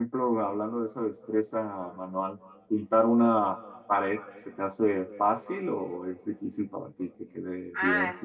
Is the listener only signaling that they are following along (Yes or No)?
No